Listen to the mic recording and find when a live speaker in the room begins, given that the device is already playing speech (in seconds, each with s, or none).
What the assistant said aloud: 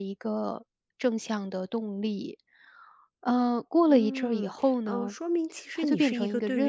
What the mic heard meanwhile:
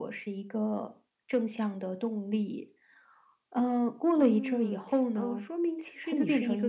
none